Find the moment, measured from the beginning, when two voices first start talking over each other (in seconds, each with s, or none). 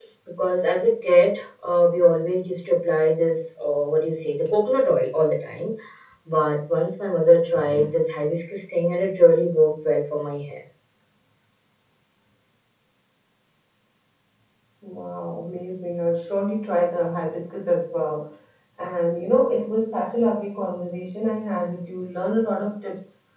none